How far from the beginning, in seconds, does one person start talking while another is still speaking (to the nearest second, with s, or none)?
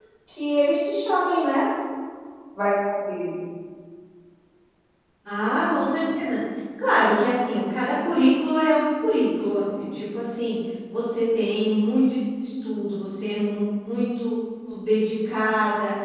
none